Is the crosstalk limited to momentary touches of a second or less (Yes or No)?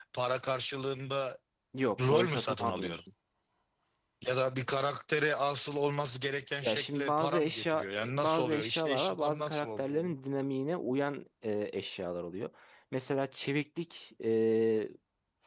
No